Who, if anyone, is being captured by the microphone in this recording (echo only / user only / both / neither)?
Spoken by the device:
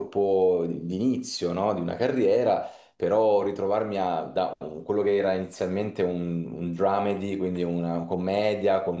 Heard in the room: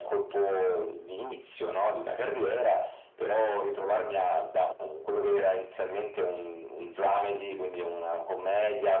echo only